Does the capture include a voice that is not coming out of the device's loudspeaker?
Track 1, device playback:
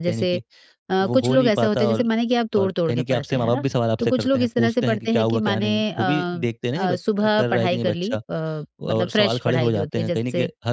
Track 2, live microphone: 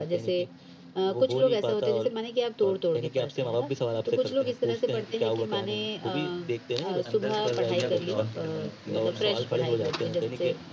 Yes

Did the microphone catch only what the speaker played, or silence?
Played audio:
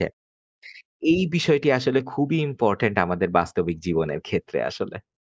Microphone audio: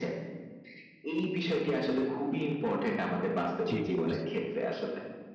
No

